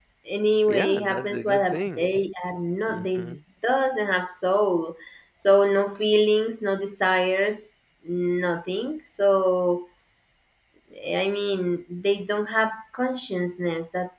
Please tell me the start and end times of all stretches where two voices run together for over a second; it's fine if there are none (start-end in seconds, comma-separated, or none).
0.7-2.0